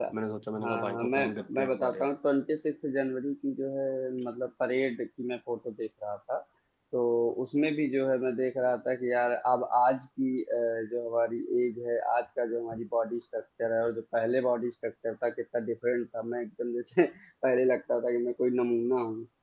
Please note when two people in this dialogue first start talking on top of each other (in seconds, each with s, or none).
0.6 s